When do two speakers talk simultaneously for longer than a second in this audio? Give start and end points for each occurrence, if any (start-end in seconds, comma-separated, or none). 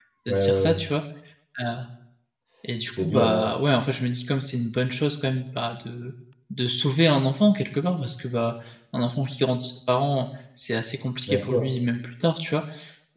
none